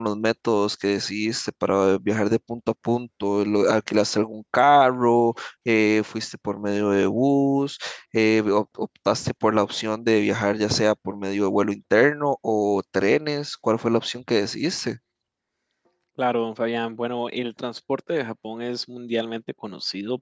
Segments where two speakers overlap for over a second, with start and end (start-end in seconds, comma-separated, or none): none